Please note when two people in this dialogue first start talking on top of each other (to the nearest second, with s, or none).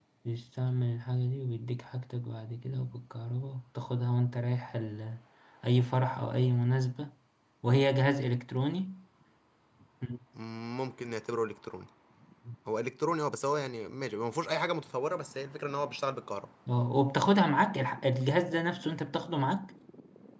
none